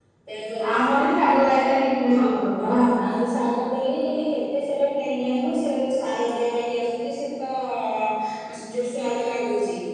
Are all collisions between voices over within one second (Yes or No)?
Yes